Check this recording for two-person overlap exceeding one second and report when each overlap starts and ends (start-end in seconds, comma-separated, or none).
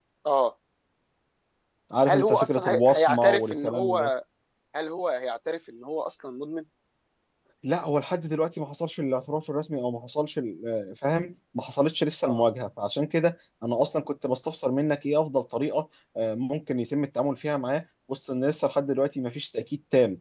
2.1-4.1